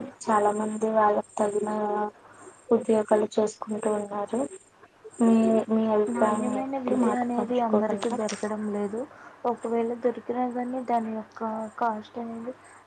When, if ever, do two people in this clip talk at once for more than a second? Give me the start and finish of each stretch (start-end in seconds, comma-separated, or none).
6.2-8.2